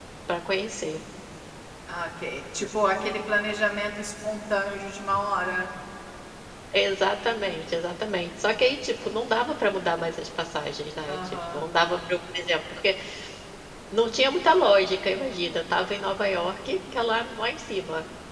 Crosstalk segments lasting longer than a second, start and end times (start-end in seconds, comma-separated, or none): none